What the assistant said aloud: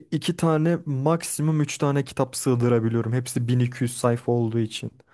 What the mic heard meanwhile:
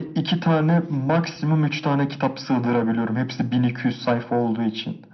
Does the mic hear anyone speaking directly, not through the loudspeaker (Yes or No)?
No